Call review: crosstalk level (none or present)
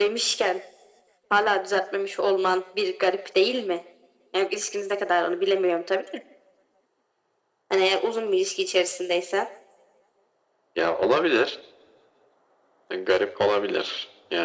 none